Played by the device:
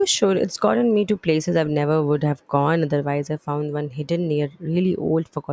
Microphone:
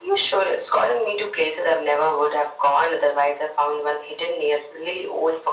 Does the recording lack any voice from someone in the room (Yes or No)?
Yes